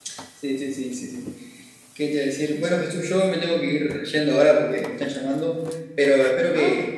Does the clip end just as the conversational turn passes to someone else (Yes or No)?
No